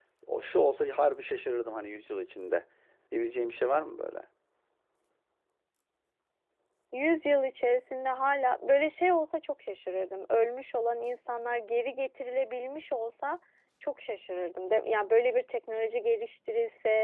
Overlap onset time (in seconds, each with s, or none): none